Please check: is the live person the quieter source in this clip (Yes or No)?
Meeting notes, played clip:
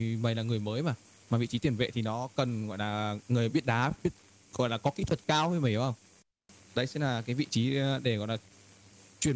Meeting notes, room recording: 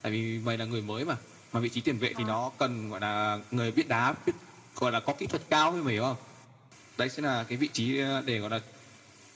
Yes